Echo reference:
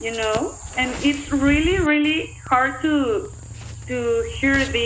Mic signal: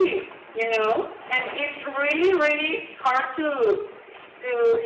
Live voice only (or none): none